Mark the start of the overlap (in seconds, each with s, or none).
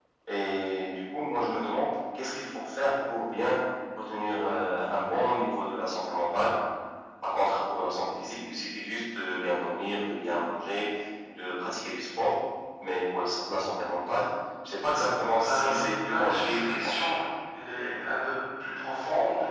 15.4 s